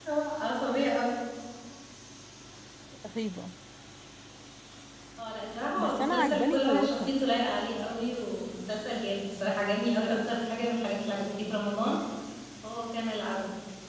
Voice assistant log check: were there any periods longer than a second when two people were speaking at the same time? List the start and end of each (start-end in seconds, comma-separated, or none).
5.8-7.1